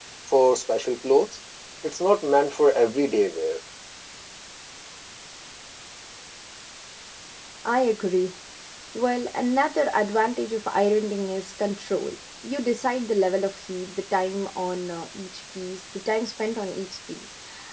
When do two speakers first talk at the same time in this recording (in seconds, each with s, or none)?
none